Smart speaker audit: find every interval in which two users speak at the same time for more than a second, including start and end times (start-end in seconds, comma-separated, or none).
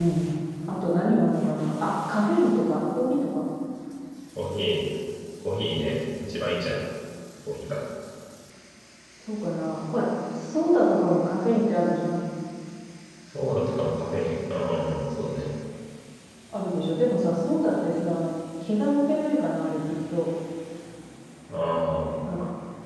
none